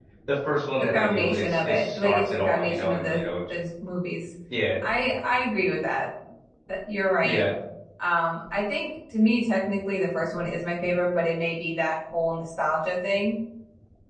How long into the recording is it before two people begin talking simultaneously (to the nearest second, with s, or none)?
1 s